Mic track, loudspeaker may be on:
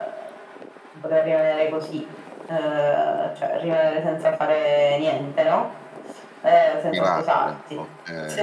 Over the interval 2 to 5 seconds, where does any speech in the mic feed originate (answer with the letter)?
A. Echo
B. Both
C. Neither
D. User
A